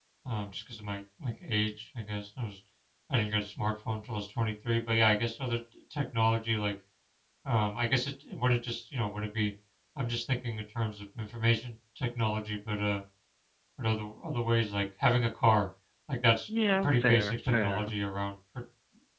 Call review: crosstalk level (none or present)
present